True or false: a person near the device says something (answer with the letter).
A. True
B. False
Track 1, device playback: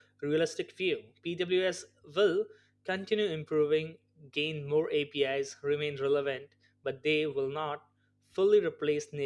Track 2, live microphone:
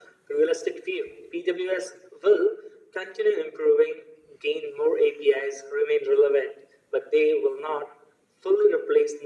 B